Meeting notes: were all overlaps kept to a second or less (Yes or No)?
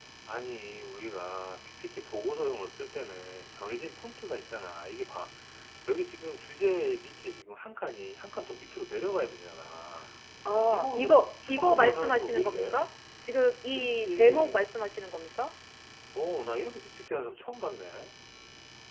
No